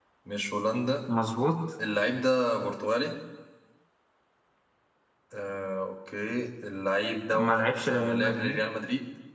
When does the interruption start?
7.3 s

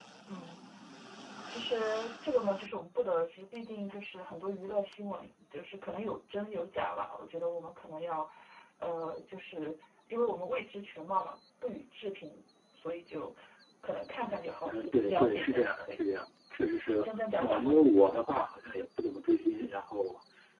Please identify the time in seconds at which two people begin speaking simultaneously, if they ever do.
14.7 s

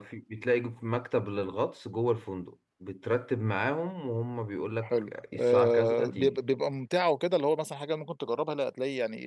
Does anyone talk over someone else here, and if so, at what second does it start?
4.8 s

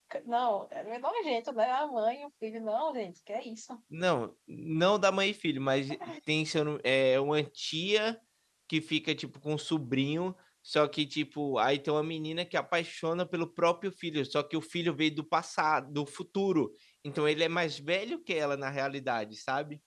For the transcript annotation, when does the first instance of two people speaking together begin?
none

